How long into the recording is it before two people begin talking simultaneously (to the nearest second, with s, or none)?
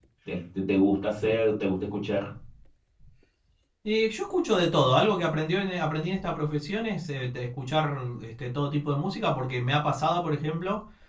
none